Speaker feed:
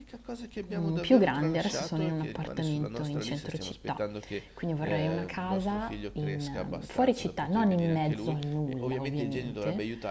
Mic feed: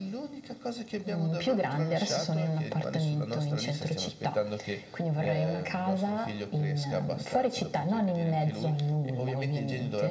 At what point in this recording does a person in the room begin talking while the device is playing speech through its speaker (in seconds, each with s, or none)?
none